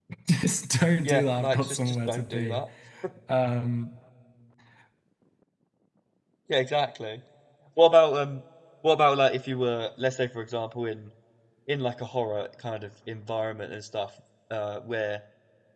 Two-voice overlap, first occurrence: 1.0 s

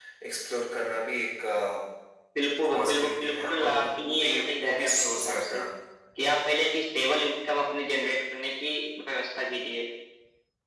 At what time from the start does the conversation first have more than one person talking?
2.7 s

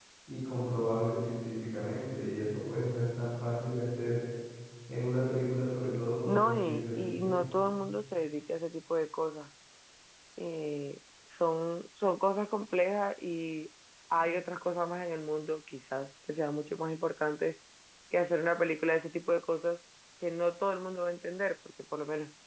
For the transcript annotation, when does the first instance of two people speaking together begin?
6.2 s

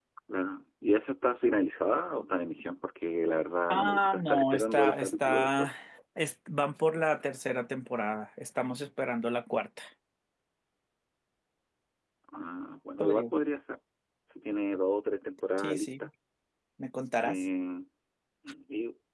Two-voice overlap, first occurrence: 3.7 s

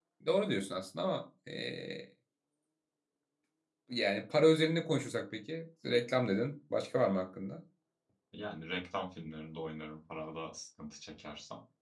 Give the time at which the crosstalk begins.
none

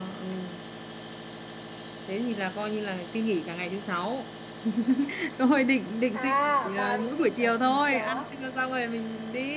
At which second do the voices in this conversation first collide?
6.1 s

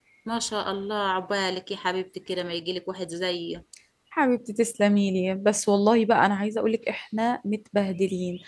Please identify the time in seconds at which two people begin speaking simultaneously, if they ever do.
none

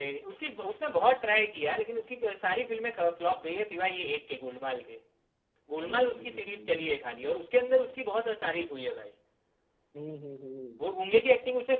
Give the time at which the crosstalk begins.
5.8 s

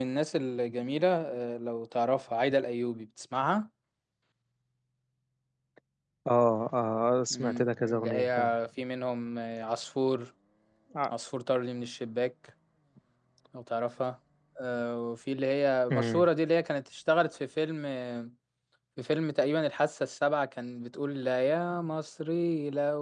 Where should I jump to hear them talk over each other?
7.3 s

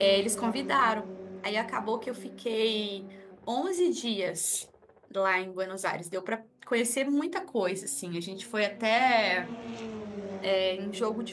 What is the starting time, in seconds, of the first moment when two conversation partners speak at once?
none

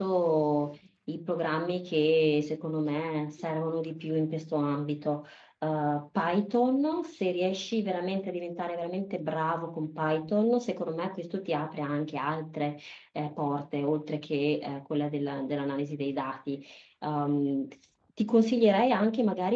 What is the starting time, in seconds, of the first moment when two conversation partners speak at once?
none

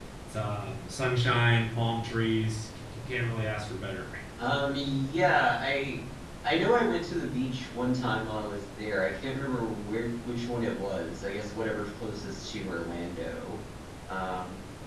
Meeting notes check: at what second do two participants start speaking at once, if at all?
none

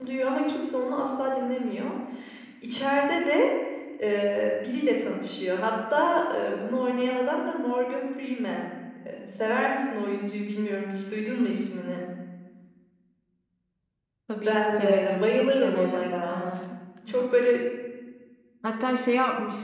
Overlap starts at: 14.4 s

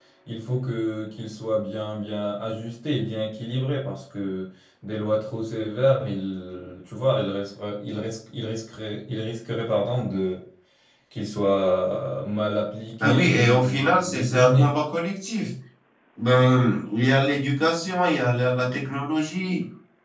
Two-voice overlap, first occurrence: 13.0 s

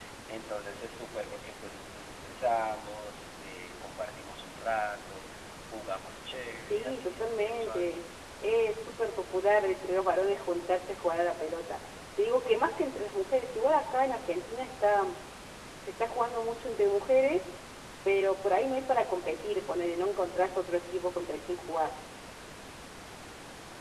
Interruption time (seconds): 6.7 s

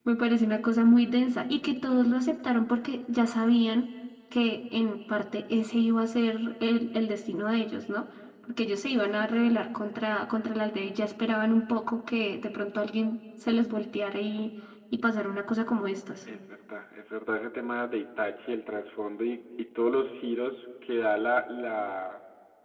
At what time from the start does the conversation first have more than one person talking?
none

